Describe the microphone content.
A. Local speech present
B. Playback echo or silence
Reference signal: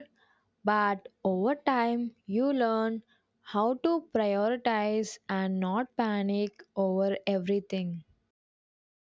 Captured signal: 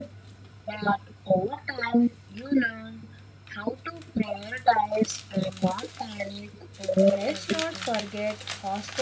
A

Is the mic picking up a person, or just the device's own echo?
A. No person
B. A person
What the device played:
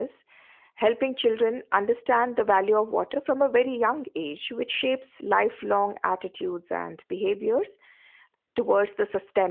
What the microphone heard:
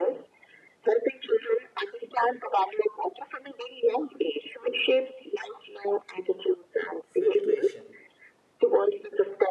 B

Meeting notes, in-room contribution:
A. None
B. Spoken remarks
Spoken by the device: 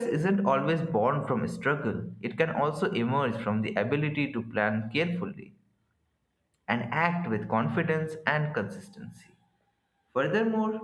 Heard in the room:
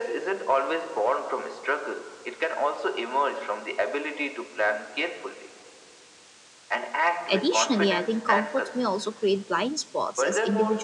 B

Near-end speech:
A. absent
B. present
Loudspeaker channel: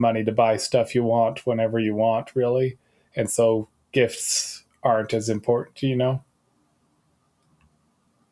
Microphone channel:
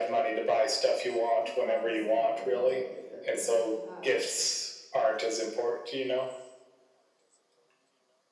B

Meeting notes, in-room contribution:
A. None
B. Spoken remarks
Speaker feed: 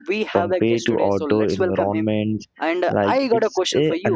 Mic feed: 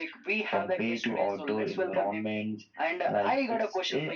A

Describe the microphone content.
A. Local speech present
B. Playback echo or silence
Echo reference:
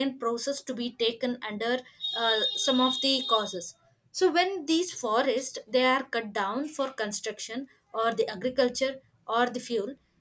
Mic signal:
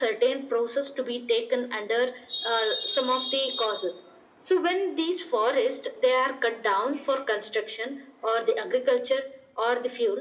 B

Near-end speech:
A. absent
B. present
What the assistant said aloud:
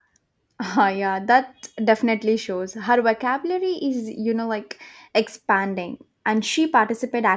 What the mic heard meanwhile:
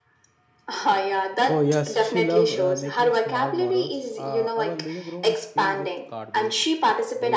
B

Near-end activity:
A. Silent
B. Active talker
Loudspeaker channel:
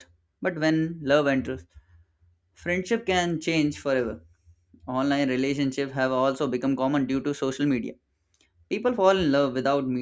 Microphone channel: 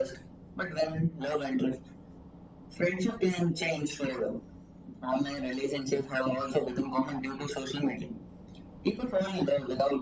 A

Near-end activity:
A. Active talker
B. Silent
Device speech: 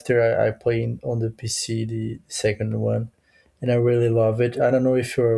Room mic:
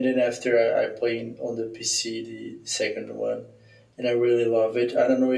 B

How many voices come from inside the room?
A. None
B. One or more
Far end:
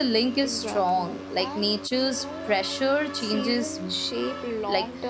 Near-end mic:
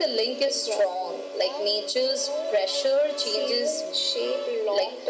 A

